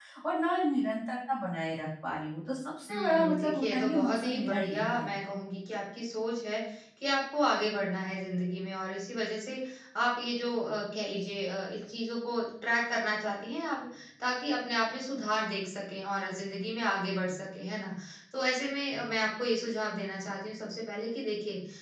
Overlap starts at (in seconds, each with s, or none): 2.9 s